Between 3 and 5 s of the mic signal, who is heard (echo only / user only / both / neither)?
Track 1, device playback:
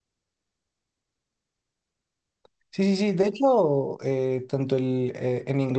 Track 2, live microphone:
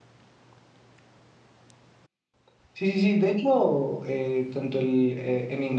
echo only